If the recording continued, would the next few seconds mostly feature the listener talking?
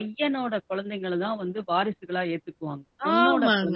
Yes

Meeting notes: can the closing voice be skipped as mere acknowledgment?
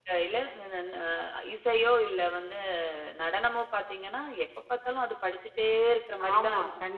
No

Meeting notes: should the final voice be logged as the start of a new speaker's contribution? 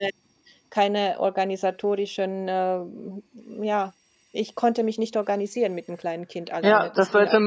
Yes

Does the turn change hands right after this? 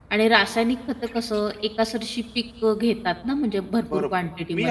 Yes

